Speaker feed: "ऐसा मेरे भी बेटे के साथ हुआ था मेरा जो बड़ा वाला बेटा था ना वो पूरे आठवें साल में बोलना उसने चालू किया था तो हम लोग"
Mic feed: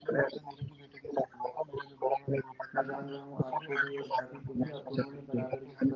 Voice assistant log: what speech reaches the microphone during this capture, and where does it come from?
both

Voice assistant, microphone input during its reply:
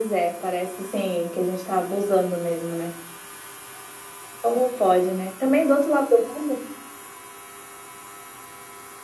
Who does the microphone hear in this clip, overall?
echo only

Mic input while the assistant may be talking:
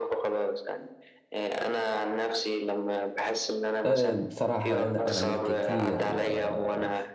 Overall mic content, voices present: both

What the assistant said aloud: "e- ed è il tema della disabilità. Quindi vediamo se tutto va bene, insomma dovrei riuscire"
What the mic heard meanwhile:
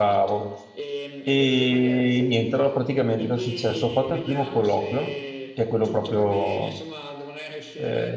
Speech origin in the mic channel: both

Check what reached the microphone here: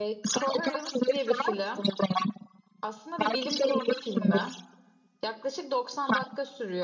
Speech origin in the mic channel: both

